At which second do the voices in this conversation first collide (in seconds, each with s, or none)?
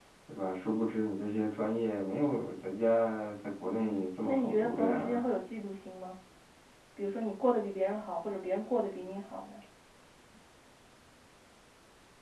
3.6 s